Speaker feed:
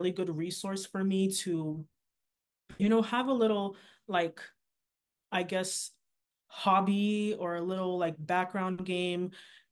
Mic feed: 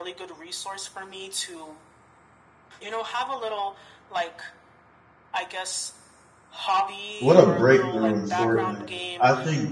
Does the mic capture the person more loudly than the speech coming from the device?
Yes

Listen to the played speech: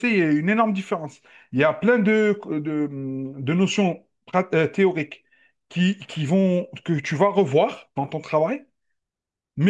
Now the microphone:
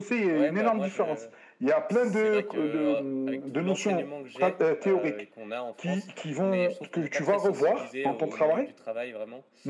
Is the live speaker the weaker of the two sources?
Yes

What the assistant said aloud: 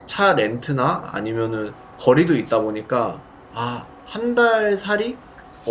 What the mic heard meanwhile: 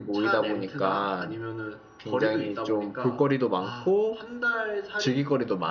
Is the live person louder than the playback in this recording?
Yes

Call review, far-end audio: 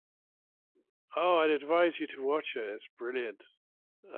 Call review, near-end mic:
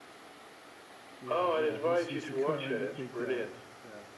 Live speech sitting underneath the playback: Yes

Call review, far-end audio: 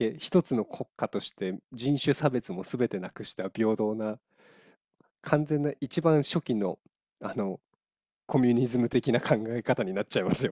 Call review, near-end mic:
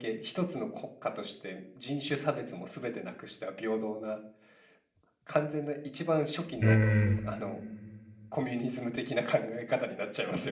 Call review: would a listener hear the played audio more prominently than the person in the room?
No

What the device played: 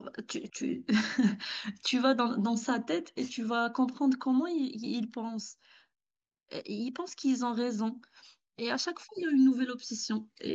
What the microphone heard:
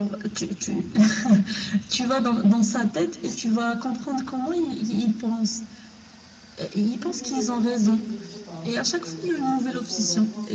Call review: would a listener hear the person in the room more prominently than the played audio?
No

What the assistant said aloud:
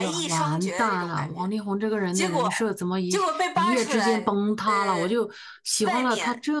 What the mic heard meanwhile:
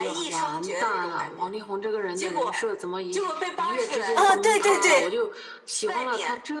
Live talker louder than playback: Yes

